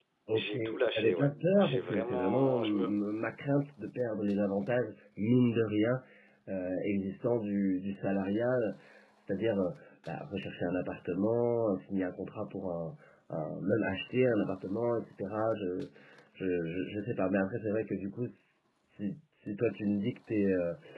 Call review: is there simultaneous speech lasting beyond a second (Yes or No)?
Yes